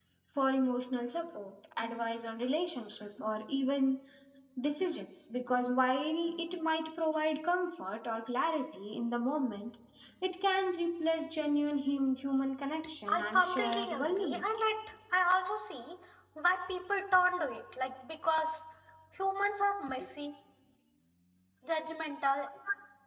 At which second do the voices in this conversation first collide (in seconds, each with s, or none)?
13.1 s